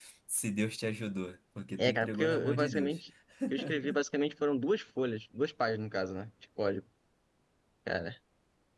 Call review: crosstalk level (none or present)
present